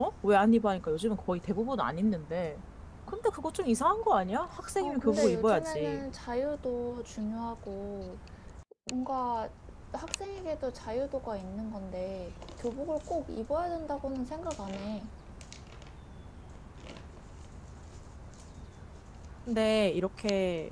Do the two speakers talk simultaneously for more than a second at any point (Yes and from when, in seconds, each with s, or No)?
Yes, from 4.8 s